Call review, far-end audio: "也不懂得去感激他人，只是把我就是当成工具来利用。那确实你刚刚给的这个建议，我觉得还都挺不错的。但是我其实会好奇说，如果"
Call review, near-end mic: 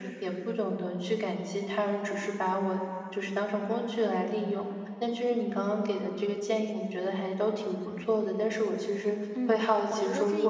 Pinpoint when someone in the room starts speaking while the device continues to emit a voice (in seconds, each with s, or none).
9.4 s